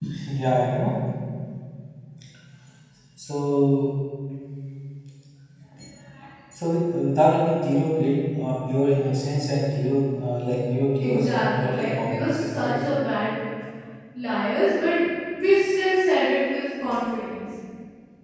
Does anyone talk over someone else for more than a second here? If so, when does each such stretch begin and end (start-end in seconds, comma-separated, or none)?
11.0-12.7